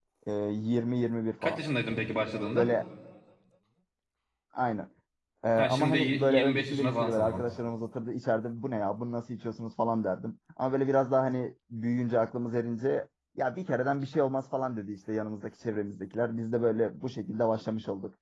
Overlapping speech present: Yes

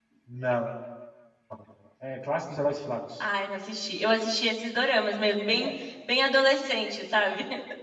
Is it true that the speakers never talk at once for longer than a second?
Yes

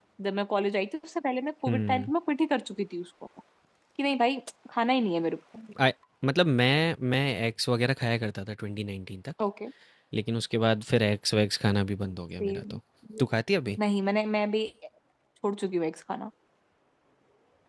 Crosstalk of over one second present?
No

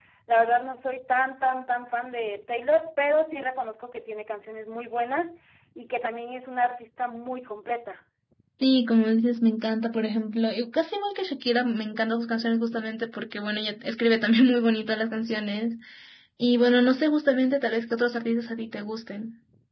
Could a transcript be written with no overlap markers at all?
Yes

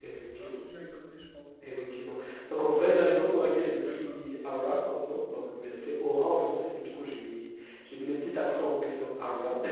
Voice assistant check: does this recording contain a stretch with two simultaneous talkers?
Yes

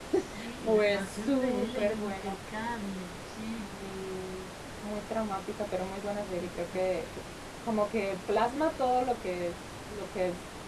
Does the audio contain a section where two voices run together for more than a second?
Yes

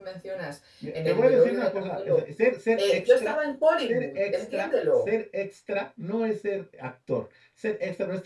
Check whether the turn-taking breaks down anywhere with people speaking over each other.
Yes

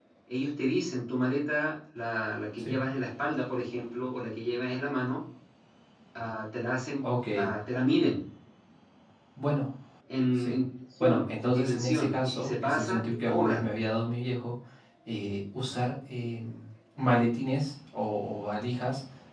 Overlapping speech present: Yes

